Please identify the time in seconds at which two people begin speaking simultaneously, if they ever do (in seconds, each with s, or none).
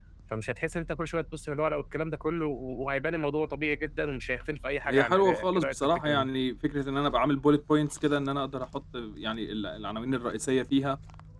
4.8 s